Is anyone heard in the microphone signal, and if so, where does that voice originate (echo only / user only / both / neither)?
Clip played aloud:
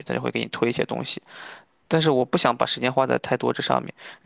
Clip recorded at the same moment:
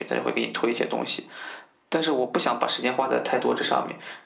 echo only